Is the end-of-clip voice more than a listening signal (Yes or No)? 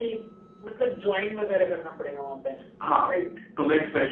Yes